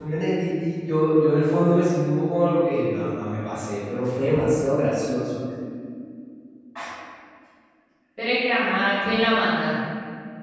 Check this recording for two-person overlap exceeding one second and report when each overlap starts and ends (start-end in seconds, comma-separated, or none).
none